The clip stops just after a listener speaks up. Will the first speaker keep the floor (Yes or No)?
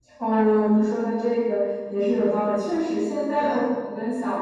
Yes